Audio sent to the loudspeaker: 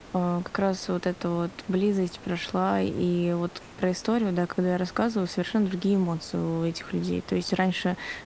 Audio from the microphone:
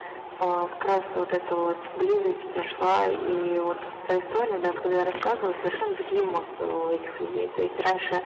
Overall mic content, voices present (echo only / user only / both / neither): echo only